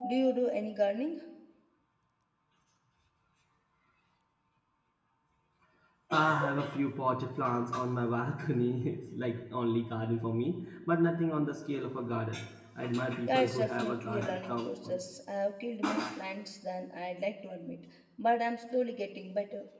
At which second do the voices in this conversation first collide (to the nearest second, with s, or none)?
13 s